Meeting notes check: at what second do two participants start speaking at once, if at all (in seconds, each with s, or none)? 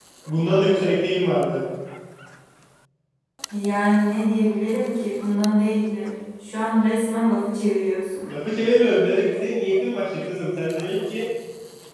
none